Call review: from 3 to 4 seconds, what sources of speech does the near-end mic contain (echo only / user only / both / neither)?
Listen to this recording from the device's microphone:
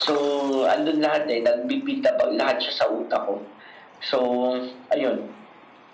echo only